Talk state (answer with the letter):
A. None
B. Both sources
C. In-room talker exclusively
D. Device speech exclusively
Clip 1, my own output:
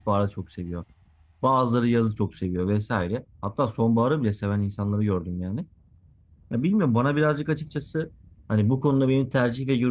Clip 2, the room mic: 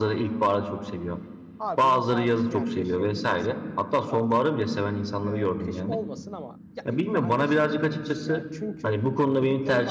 B